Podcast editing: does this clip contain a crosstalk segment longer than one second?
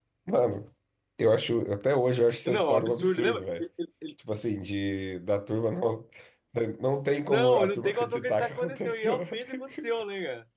Yes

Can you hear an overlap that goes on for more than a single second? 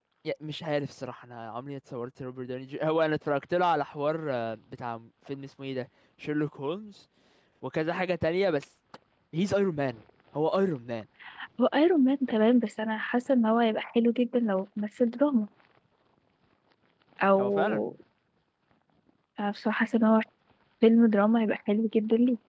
No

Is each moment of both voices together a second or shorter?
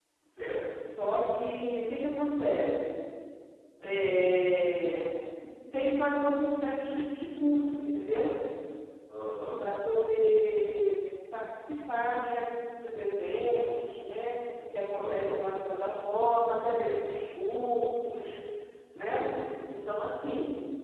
Yes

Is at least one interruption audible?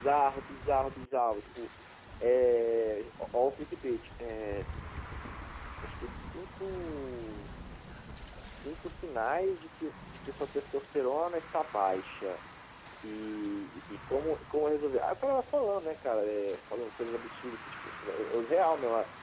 No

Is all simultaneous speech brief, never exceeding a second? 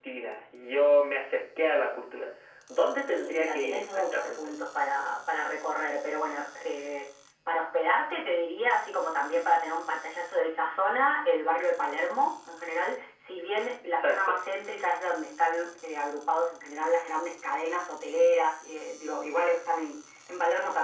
No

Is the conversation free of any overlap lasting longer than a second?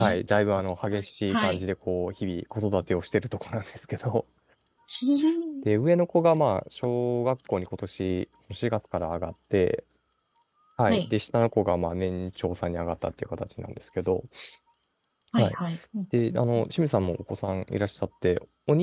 Yes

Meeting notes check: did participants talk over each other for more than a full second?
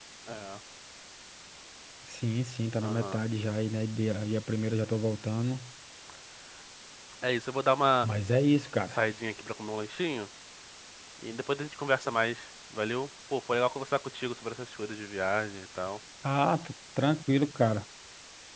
No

